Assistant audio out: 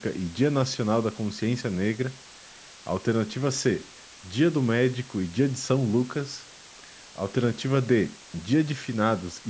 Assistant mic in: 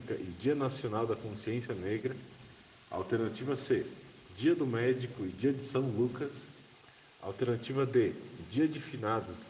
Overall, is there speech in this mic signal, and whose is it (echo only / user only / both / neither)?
echo only